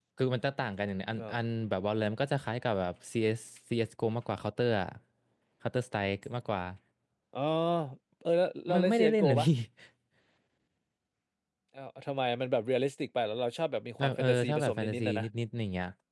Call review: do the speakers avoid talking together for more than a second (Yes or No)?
No